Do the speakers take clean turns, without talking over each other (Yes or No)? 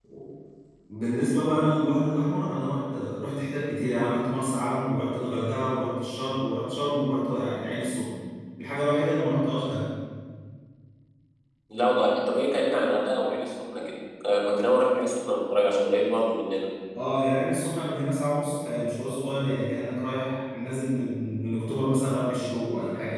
Yes